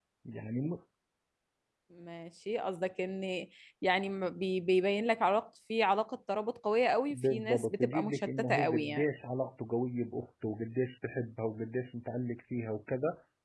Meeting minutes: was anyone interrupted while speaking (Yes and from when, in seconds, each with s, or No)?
Yes, from 7.1 s